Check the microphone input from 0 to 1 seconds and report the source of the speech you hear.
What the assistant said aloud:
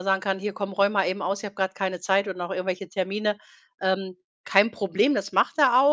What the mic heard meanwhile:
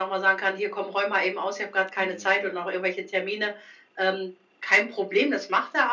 echo only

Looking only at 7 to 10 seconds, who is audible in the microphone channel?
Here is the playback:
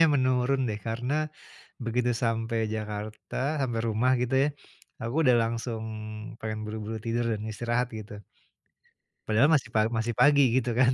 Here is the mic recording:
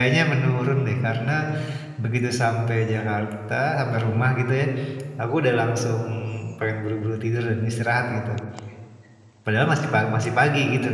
echo only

